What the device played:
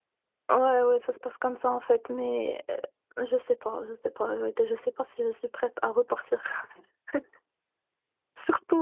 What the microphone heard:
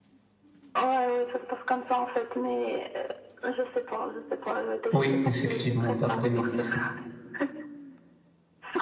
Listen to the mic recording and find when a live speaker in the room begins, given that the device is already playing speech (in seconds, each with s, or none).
4.9 s